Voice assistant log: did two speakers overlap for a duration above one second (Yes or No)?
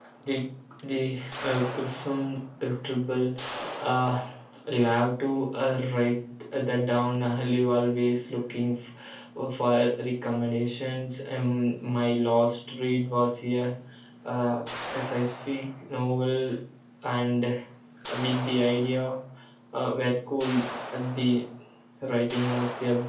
No